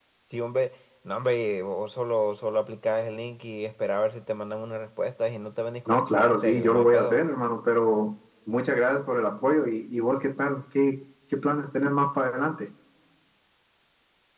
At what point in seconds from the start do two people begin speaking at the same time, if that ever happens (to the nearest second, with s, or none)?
6 s